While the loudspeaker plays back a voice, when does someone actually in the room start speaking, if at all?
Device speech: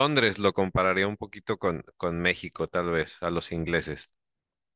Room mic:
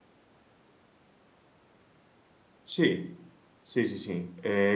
2.6 s

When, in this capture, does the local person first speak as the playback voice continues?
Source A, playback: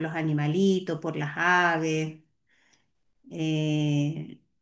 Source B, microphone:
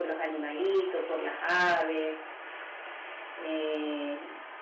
none

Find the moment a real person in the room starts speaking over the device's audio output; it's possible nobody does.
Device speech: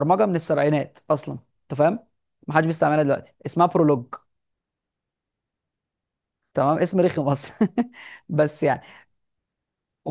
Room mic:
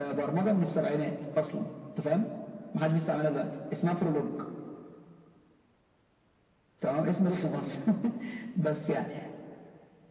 none

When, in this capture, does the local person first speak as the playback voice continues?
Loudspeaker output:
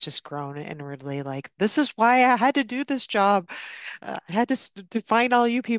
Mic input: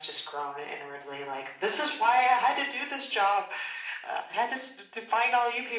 none

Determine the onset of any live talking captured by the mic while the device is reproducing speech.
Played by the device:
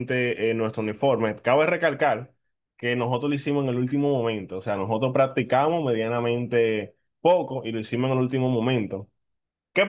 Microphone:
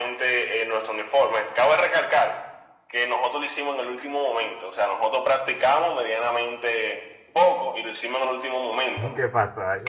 8.9 s

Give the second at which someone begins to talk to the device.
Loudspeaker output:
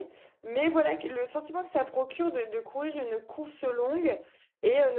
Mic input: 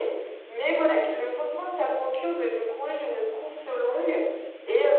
none

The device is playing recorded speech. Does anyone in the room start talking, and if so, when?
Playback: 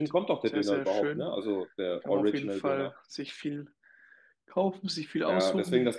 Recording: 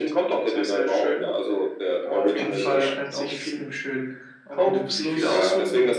2.3 s

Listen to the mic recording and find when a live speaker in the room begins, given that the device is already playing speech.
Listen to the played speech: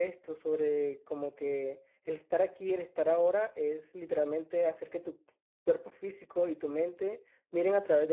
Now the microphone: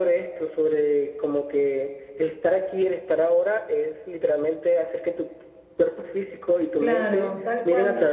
6.8 s

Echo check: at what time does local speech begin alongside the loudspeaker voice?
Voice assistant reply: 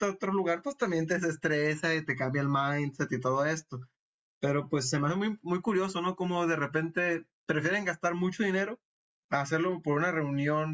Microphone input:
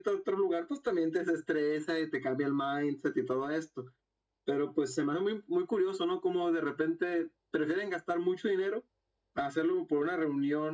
none

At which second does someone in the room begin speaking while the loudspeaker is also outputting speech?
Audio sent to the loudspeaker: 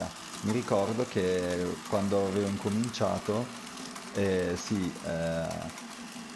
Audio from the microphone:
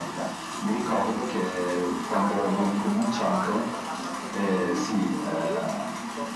2.0 s

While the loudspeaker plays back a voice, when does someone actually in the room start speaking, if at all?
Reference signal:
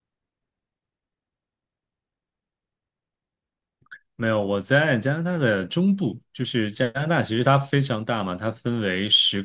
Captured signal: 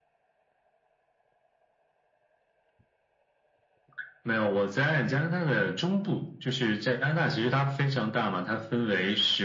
none

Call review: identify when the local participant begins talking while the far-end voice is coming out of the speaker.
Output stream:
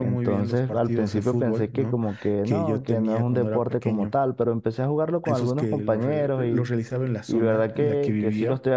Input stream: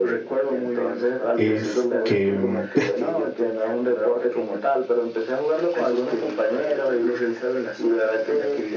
1.4 s

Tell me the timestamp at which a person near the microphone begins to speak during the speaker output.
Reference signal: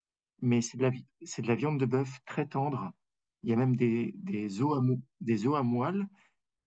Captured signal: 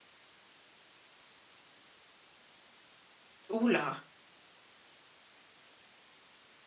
3.6 s

